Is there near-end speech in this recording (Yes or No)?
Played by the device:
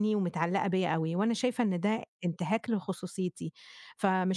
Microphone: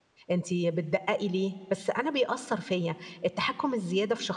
Yes